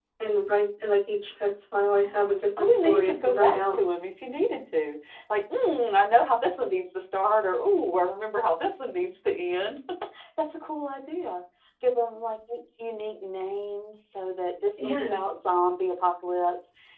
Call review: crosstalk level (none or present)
present